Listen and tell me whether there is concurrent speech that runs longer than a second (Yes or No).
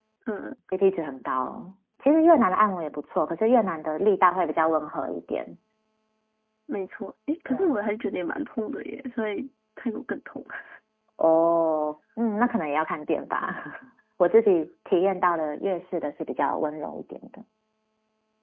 No